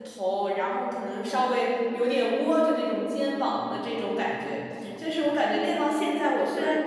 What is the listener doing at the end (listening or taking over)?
taking over